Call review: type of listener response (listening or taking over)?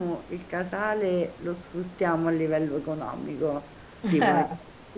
listening